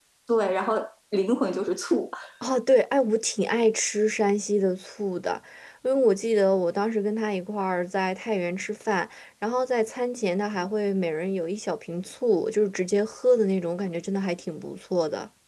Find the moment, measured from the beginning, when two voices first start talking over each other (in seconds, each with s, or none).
none